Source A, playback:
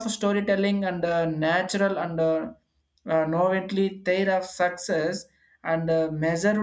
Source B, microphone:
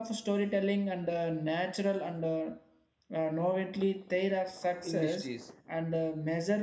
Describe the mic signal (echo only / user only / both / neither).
both